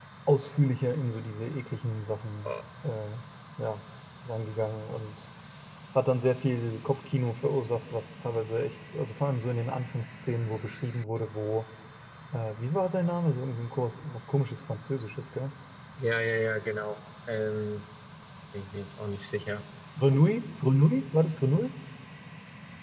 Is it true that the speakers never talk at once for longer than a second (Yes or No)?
Yes